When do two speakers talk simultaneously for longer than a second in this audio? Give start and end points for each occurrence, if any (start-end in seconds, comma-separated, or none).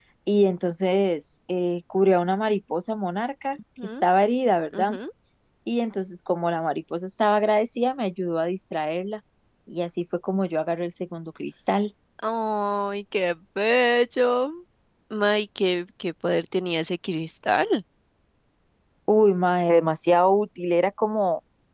none